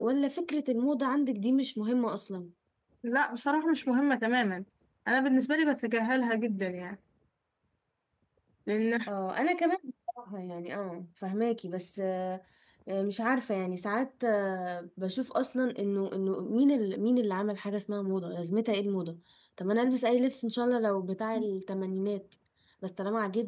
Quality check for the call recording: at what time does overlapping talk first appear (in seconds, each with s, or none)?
none